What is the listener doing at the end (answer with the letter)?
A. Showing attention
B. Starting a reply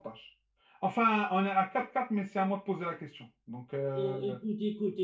B